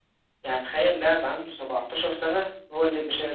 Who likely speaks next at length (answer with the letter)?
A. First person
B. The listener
B